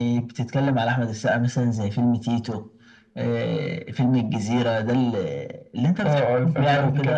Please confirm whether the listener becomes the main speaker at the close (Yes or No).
Yes